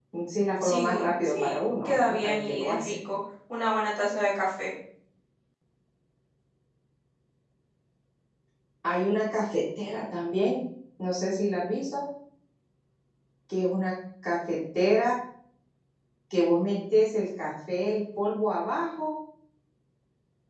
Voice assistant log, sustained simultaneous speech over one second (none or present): present